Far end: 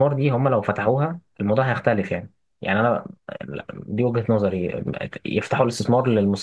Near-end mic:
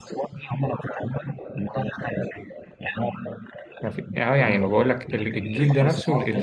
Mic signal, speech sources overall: both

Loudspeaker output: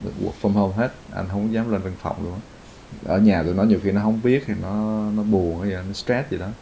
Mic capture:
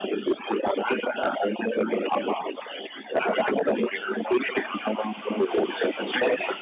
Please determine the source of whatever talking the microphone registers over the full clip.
echo only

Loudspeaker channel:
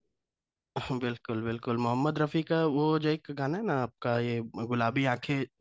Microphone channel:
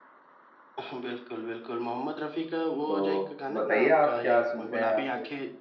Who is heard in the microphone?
both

